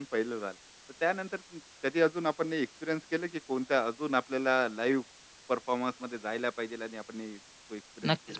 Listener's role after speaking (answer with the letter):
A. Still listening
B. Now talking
B